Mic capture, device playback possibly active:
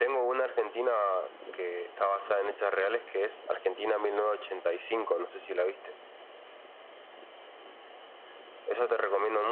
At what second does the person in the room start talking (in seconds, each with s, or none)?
none